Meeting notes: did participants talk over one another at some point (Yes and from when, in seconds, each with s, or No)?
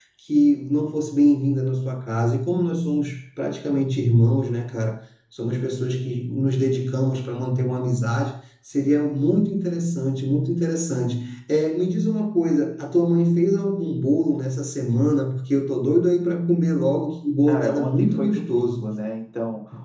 Yes, from 17.5 s